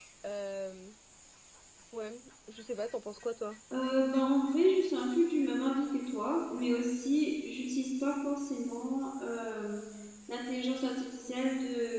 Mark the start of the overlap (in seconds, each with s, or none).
none